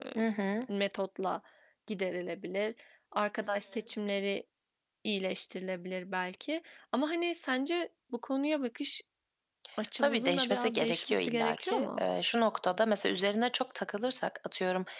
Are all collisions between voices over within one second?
No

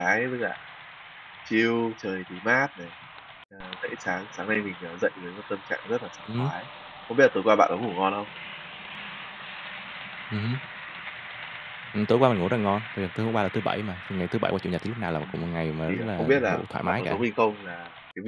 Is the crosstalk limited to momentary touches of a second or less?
No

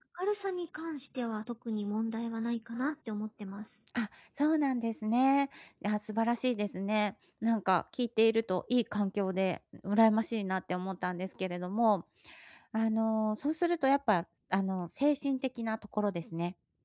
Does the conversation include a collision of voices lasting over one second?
No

